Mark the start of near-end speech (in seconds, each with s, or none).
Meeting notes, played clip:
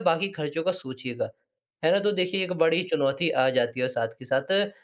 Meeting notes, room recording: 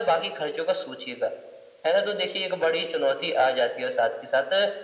none